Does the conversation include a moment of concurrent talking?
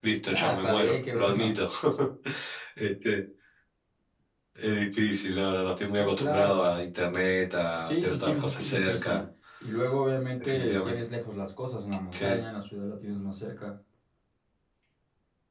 Yes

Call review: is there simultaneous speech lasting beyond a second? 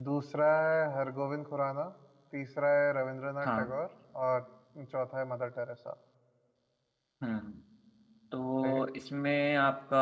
No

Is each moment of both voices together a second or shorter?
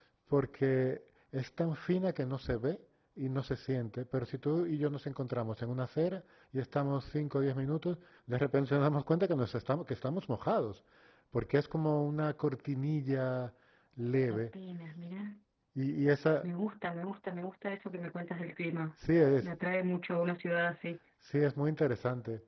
Yes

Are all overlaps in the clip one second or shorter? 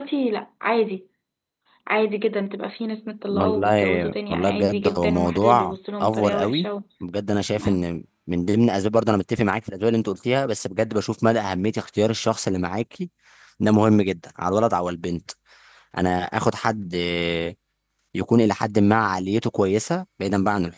No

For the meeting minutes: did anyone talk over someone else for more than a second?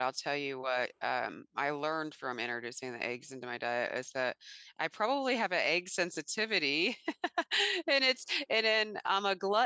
No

